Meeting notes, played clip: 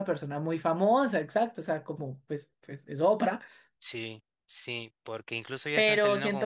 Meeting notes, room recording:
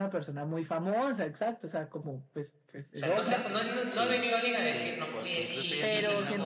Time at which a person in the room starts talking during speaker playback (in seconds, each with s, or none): 2.8 s